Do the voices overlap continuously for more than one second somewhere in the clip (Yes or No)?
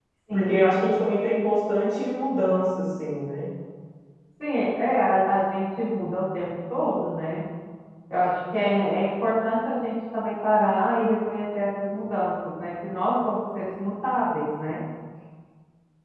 No